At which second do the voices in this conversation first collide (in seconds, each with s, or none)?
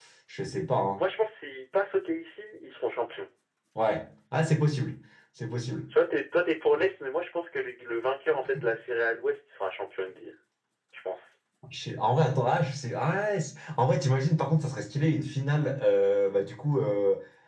none